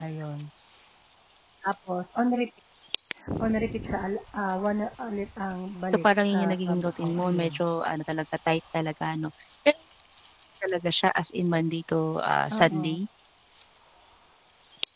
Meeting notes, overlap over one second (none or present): present